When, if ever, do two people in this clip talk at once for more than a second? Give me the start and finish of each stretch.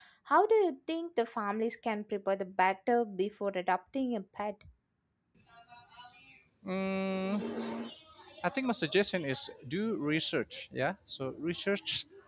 none

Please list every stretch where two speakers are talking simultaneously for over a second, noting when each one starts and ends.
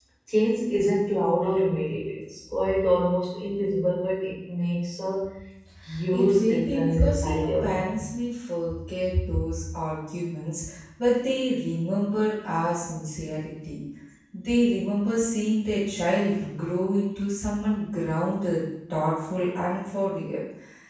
6.1-7.9

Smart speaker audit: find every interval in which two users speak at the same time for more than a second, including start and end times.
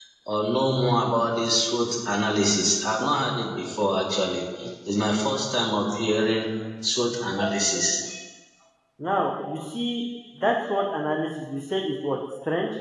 none

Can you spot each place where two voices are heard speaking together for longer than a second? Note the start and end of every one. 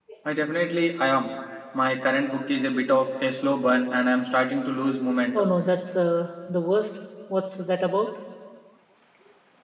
none

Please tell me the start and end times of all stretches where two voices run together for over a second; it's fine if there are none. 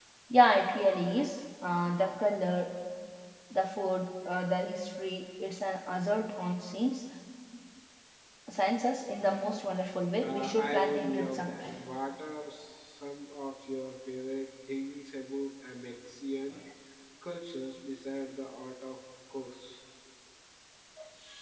10.2-11.6

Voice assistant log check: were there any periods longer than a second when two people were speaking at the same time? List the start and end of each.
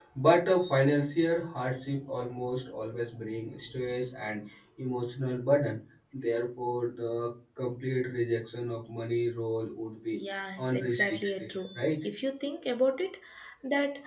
10.7-12.0

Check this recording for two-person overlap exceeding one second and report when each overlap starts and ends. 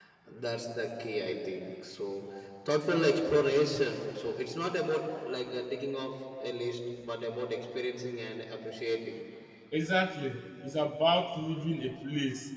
none

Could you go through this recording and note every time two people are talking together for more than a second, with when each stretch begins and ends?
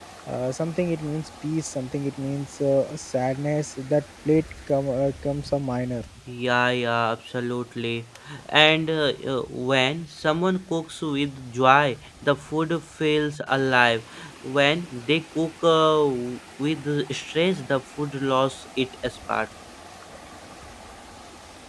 none

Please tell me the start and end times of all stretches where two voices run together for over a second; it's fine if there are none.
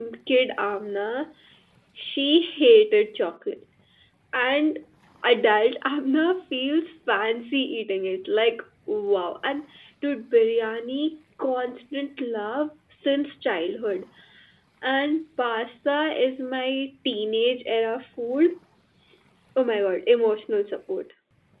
none

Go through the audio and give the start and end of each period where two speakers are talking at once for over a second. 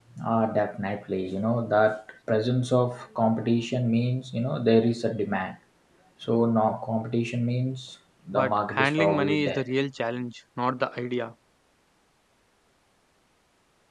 8.3-9.6

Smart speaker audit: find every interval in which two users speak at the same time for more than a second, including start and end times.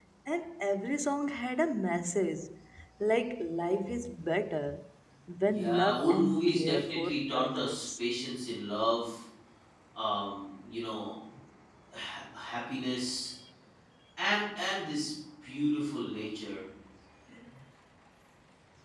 5.4-7.8

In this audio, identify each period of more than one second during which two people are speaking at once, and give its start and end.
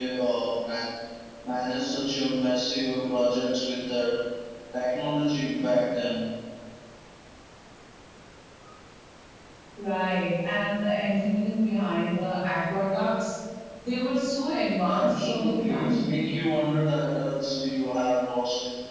14.9-16.2

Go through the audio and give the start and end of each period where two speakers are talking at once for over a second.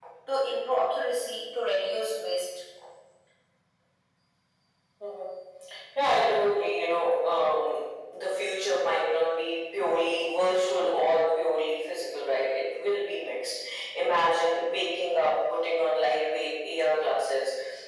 none

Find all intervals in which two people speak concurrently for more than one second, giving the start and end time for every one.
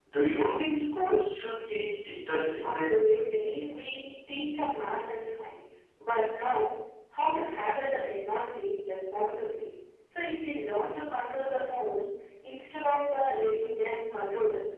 none

